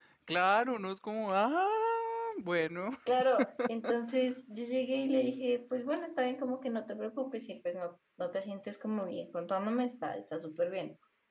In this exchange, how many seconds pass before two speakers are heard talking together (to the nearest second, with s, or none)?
none